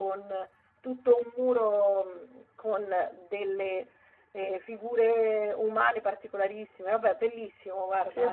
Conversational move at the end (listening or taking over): taking over